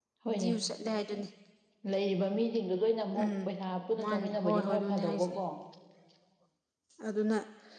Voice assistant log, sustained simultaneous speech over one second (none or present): present